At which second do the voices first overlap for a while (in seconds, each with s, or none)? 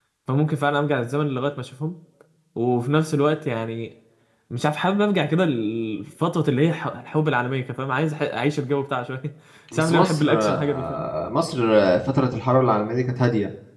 9.7 s